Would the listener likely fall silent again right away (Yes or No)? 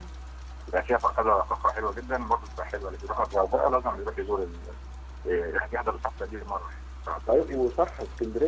No